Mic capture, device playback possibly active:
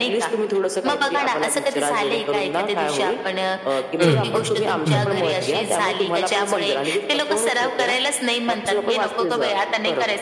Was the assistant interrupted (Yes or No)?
Yes